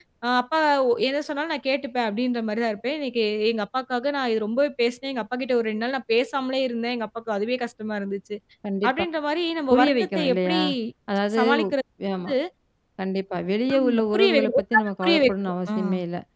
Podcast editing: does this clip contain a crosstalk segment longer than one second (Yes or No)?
Yes